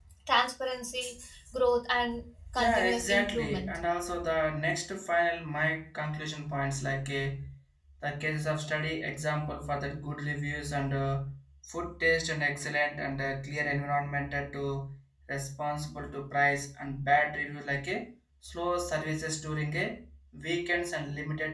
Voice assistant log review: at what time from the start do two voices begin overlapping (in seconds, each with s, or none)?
2.6 s